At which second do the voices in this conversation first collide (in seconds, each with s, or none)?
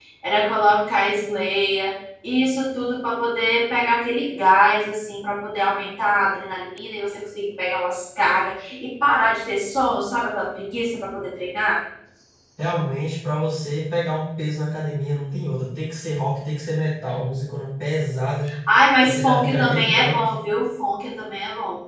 19.0 s